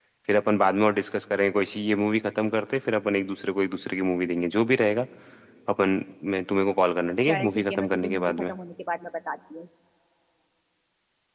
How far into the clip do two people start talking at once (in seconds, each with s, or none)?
7.2 s